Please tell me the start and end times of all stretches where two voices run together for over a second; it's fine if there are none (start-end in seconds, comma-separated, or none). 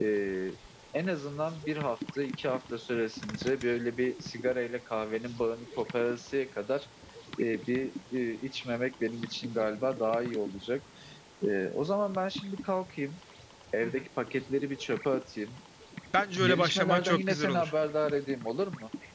16.4-17.7